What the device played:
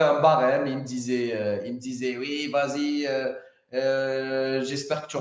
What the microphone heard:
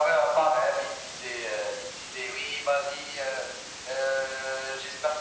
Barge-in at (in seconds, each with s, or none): none